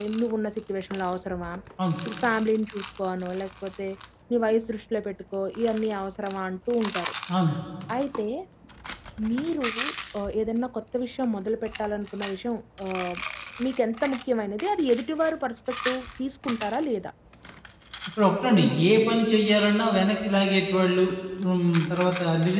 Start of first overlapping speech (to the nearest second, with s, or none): none